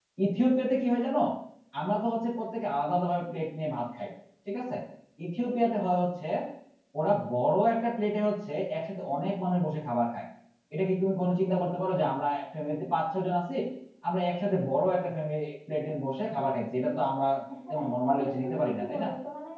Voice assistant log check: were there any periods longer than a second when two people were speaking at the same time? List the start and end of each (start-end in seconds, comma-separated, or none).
17.7-19.1